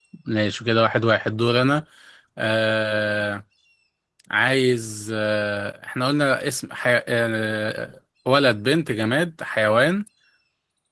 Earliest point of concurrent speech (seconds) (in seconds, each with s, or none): none